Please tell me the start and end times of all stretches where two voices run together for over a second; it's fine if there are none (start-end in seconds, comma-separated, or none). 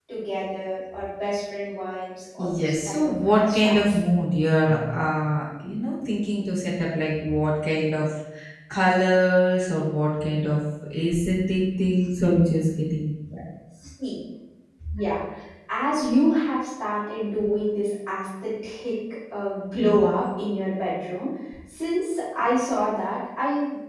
2.5-4.0